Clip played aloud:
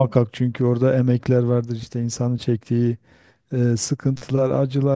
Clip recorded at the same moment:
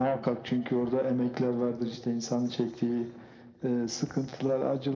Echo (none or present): present